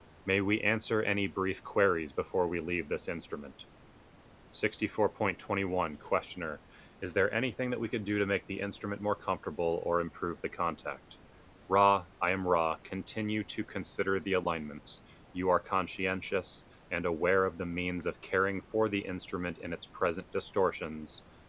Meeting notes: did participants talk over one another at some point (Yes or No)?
No